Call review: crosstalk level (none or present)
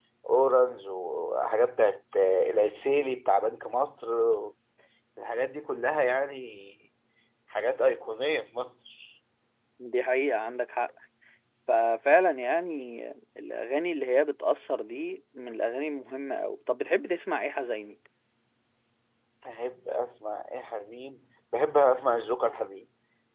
none